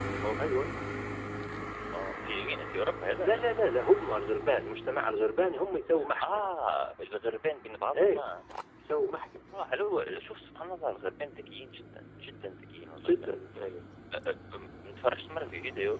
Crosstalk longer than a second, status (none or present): none